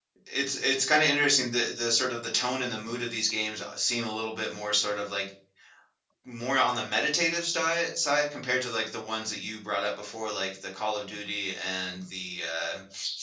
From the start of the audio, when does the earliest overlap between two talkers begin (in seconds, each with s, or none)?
none